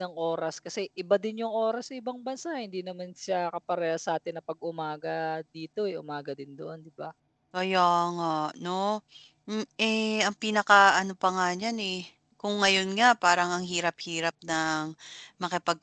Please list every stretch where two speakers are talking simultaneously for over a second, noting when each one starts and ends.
none

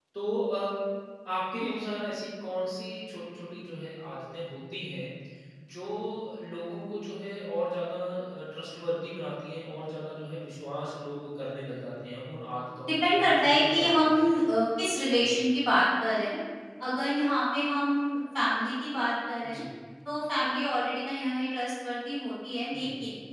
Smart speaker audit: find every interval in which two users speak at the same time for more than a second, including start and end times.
12.9-14.3

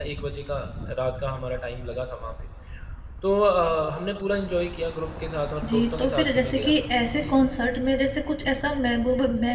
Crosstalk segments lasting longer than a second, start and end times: 5.7-7.4

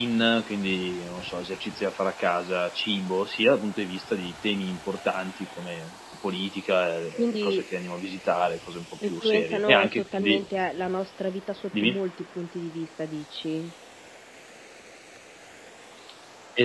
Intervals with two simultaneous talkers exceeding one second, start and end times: 9.0-10.4

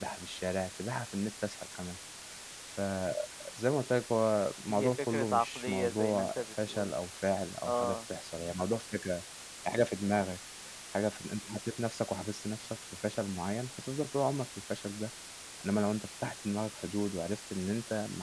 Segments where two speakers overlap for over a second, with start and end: 4.7-6.9

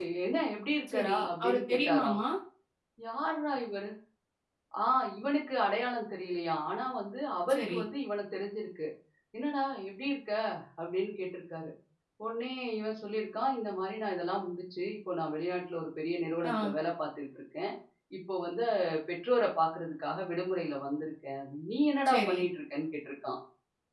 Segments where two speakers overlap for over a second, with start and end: 0.9-2.2

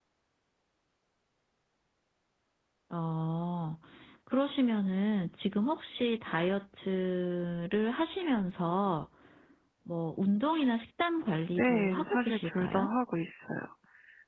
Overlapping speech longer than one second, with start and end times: 11.6-12.9

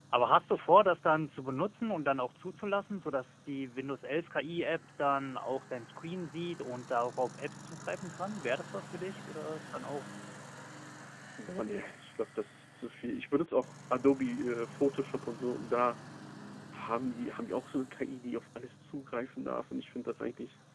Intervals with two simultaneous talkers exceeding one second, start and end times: none

